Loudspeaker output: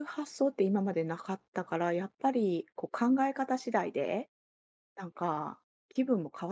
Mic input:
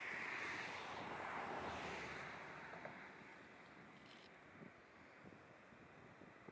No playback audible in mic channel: Yes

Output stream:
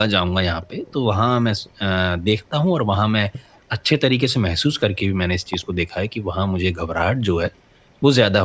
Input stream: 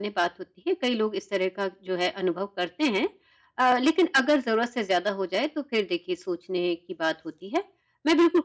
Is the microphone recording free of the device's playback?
Yes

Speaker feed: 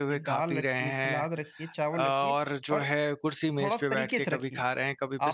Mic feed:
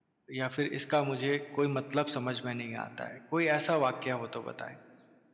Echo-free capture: Yes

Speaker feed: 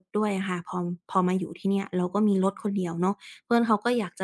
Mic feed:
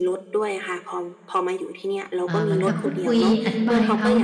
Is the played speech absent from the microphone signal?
No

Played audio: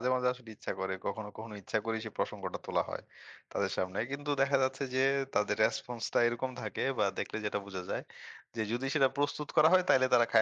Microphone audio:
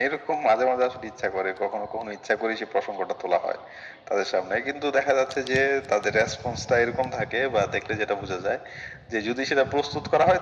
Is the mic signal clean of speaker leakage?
No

